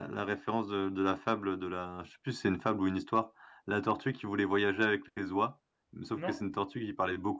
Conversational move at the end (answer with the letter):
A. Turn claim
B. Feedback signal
B